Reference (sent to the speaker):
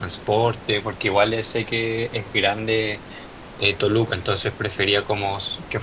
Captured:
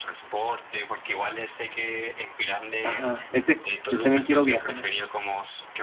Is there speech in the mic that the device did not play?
Yes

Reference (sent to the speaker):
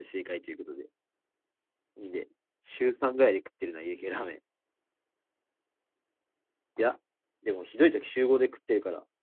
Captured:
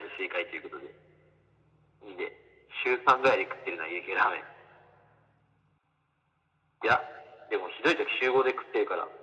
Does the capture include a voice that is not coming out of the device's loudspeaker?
No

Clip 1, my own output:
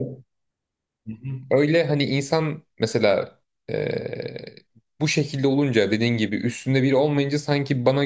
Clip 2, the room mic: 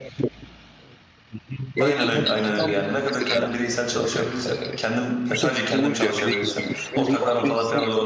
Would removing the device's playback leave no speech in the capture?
No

